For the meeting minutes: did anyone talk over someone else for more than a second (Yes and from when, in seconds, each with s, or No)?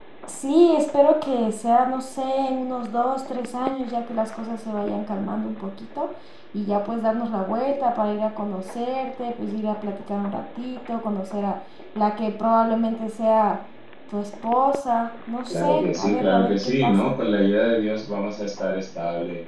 Yes, from 15.5 s